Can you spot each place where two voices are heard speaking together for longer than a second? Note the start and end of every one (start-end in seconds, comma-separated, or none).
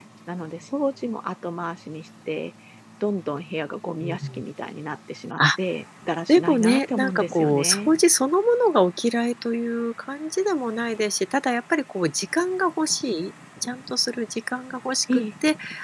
6.3-7.9